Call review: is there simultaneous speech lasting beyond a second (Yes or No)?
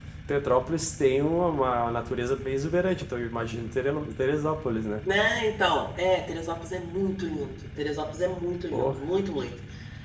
No